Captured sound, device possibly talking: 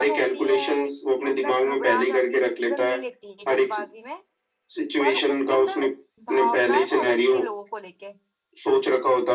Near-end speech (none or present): present